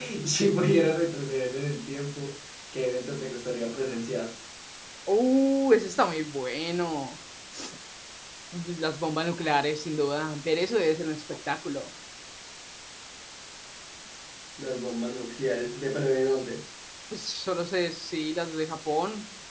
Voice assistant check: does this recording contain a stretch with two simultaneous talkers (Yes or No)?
No